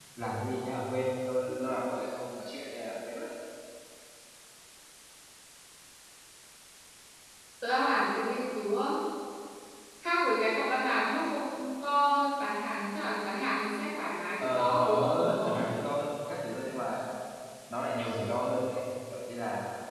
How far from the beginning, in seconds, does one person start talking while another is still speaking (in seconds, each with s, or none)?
14.4 s